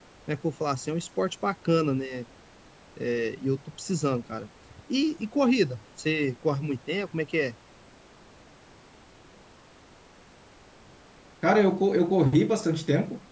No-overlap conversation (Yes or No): Yes